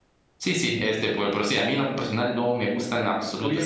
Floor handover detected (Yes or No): Yes